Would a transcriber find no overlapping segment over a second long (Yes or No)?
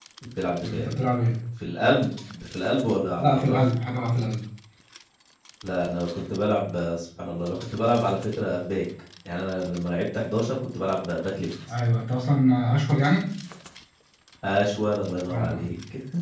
Yes